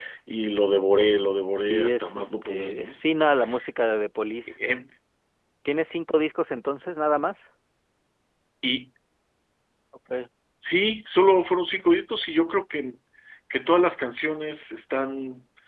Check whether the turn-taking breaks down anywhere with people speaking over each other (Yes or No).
Yes